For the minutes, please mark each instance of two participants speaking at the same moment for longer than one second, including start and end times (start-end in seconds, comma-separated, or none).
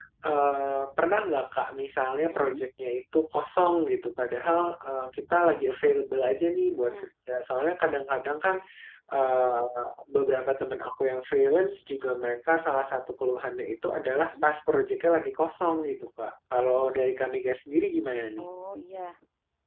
none